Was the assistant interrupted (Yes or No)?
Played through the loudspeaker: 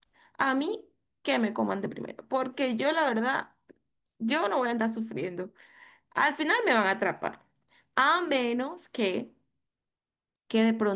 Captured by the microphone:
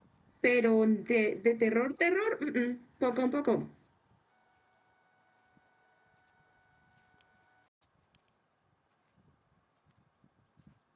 Yes